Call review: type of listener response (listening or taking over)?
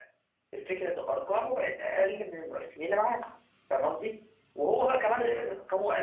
listening